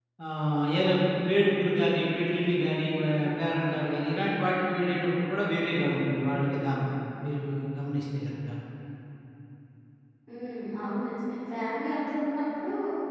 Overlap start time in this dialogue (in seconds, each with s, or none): none